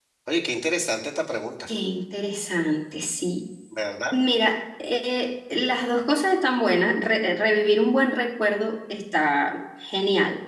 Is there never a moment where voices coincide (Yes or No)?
Yes